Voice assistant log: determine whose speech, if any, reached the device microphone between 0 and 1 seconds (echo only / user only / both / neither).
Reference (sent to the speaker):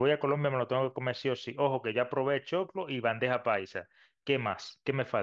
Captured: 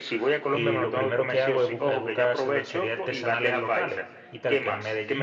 both